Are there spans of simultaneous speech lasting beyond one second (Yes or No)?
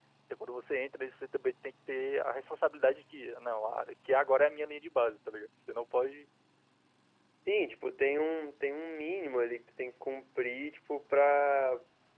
No